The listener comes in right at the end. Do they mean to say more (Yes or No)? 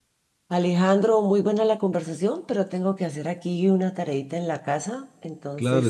Yes